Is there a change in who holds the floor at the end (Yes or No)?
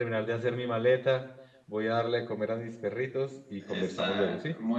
Yes